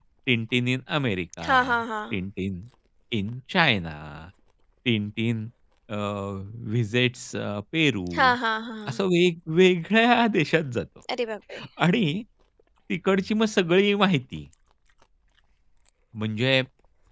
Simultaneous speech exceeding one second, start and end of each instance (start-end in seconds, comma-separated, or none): none